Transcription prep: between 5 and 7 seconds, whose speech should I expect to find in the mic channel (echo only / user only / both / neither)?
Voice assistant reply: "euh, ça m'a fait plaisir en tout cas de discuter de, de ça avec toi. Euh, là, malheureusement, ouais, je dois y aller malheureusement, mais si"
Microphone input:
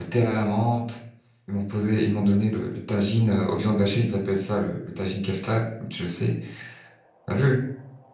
user only